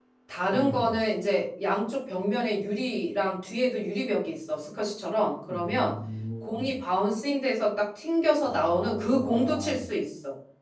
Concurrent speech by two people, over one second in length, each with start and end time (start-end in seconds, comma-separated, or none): 8.4-9.8